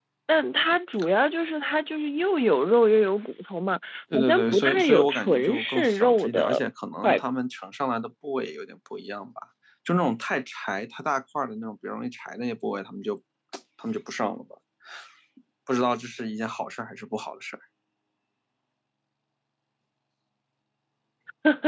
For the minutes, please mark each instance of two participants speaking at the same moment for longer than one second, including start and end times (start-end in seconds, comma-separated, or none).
4.1-6.6